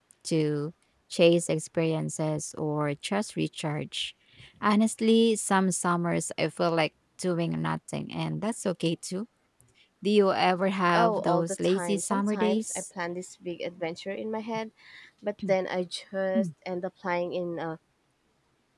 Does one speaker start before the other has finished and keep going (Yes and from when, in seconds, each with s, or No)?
Yes, from 10.9 s